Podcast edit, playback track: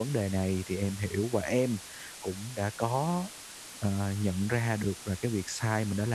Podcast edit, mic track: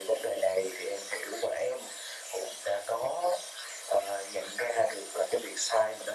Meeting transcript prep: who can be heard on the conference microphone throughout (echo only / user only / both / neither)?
echo only